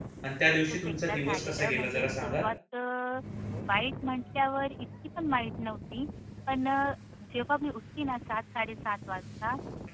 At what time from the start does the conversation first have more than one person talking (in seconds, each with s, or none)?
0.5 s